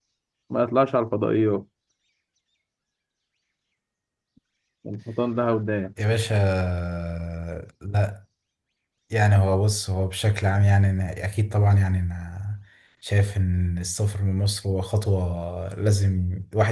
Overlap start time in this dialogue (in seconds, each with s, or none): none